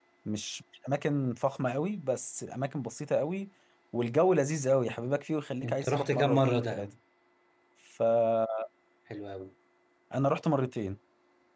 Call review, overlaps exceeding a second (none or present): present